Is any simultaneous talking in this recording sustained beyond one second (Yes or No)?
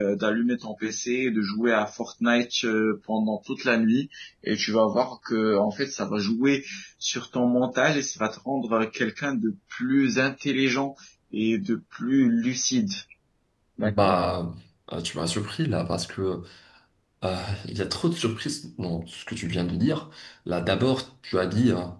No